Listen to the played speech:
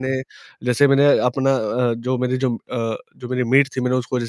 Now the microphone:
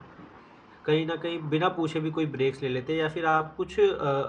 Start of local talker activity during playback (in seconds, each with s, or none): 0.8 s